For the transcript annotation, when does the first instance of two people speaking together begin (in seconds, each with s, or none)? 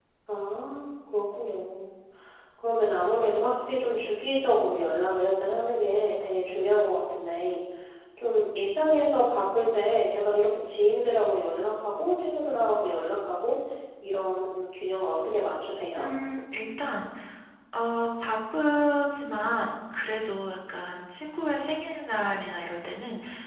none